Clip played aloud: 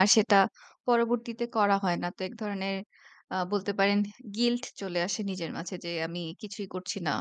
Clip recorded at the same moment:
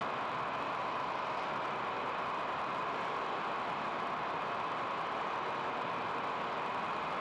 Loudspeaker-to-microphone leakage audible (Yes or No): No